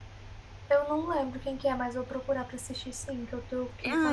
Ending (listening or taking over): taking over